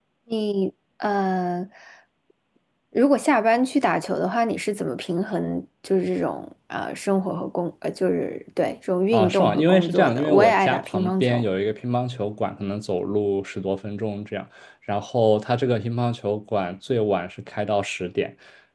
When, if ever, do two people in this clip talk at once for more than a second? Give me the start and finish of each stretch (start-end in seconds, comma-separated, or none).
9.1-11.4